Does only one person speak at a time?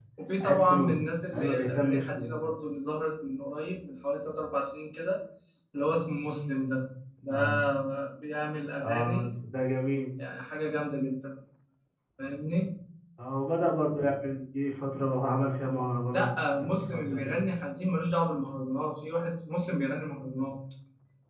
No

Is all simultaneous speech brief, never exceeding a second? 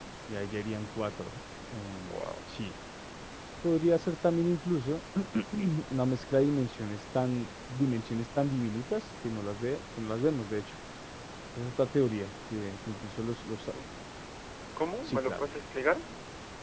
Yes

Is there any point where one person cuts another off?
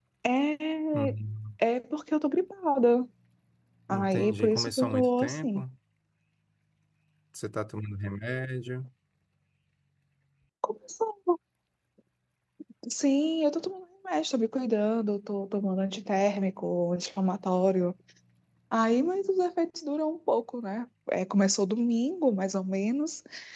Yes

